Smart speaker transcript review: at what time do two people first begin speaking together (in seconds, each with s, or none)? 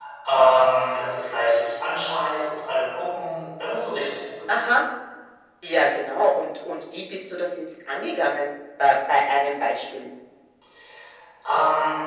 none